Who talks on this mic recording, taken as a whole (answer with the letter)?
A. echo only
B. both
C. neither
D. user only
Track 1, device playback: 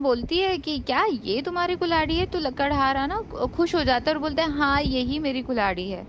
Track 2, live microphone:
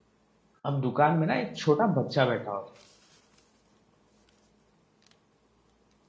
D